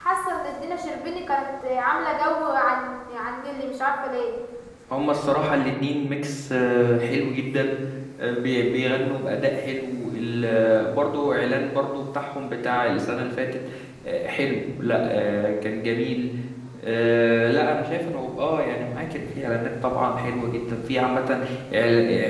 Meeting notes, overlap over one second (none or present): none